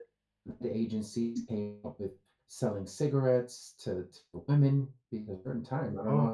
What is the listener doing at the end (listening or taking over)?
listening